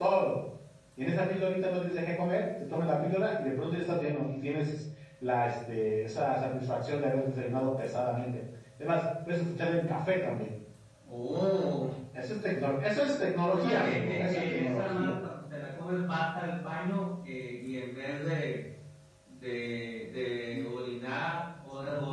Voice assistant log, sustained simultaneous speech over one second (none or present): present